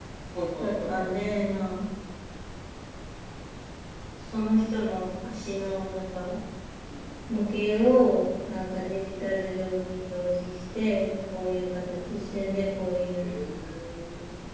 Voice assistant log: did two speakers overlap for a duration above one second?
No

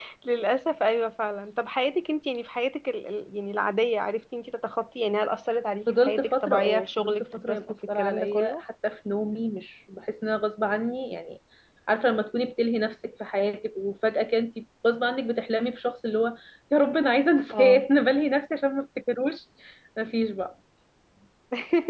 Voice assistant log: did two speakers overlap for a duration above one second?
Yes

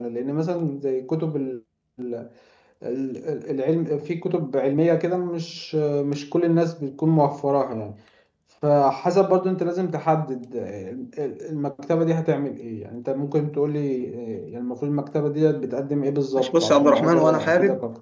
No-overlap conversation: No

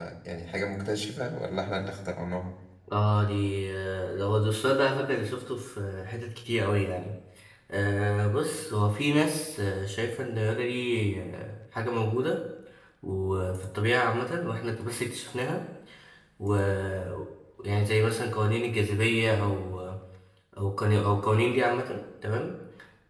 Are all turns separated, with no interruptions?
Yes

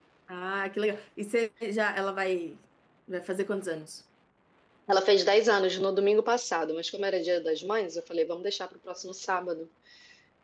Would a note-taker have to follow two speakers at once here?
No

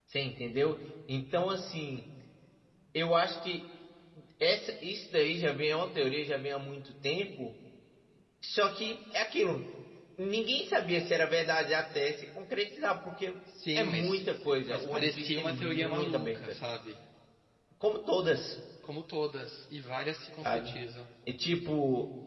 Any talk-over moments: Yes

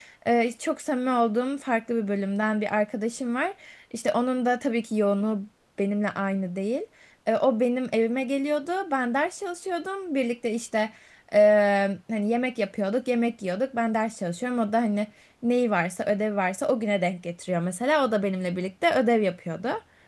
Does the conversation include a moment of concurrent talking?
No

